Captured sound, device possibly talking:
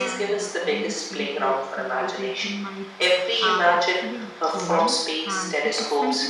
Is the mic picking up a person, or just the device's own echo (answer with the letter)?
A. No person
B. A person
B